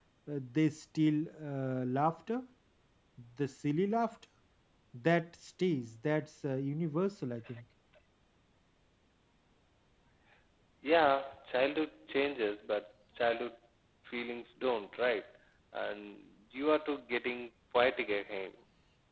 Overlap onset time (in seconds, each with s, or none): none